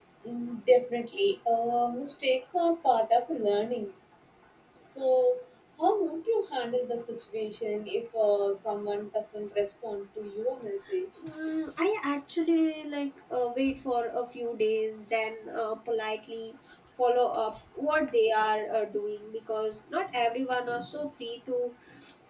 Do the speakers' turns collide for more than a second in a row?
No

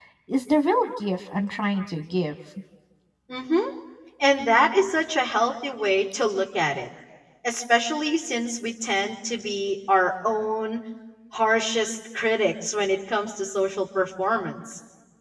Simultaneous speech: No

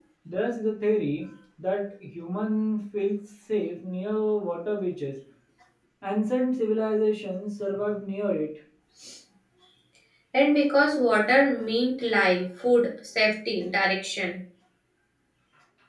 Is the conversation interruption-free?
Yes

